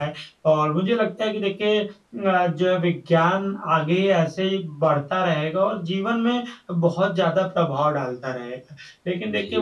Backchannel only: Yes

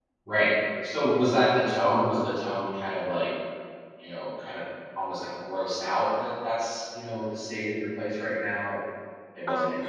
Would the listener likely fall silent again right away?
Yes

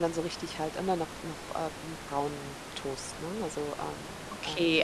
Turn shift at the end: Yes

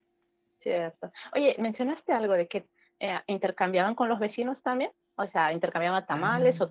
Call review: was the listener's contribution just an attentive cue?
Yes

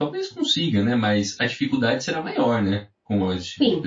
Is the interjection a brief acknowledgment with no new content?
No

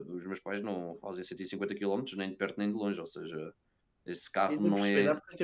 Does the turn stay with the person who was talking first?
No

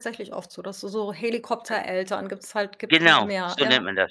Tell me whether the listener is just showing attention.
No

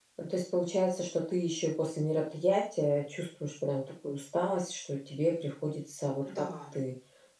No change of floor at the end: Yes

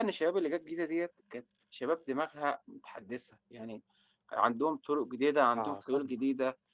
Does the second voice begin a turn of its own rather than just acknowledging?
No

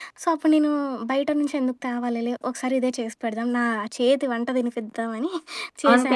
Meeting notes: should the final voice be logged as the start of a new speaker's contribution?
Yes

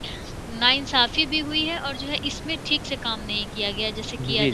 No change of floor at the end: No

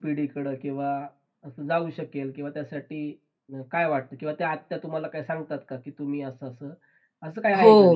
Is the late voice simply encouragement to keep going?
No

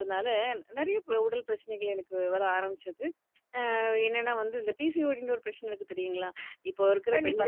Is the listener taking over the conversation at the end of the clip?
Yes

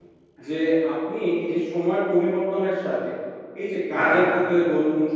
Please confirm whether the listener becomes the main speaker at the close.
No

